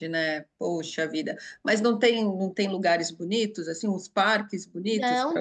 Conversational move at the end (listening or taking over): taking over